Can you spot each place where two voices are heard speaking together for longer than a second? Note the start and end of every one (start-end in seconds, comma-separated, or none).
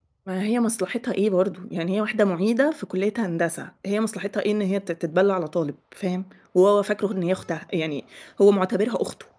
none